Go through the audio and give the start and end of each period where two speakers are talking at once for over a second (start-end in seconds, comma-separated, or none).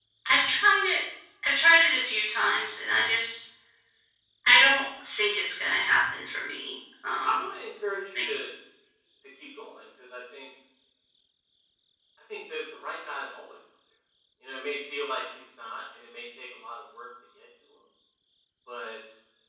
none